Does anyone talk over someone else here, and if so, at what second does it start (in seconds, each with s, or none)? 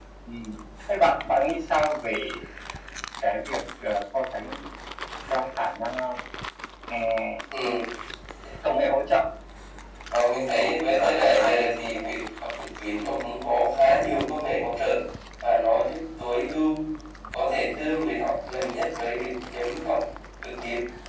10.9 s